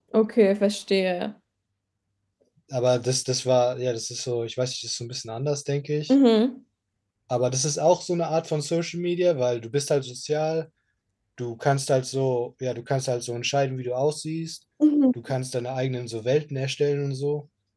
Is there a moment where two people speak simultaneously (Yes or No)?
No